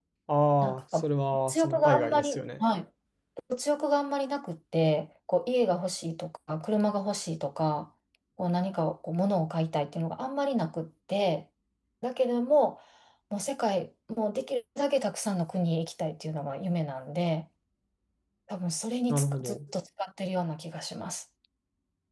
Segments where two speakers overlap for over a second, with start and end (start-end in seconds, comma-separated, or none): 1.3-2.6